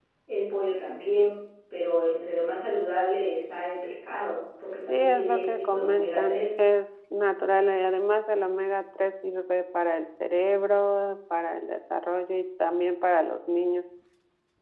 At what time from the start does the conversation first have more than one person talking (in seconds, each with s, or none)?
4.8 s